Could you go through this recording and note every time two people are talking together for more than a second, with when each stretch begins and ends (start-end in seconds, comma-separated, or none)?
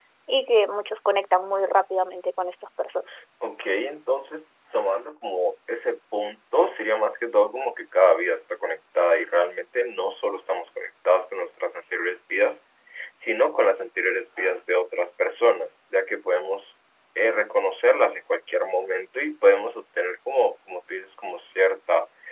none